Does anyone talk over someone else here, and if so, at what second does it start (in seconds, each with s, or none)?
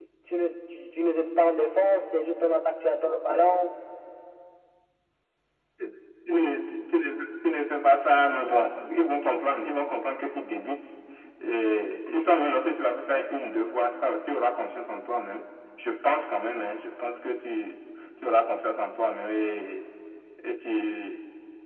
none